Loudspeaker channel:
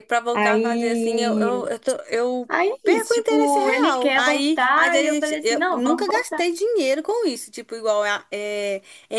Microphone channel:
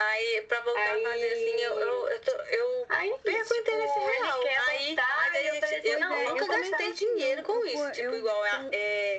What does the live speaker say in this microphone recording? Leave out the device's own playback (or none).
Pois é, eu também sou assim, eu, eu, co- eu com,